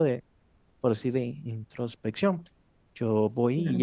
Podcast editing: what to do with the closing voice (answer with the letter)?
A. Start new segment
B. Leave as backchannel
B